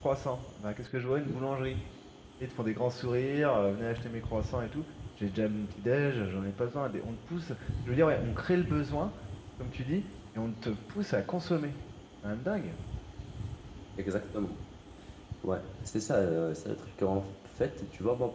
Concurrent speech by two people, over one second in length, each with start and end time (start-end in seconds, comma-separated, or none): none